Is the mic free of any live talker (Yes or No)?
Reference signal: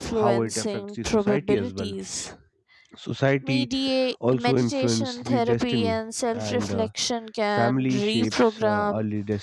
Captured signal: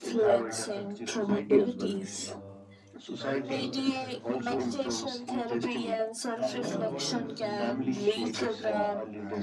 No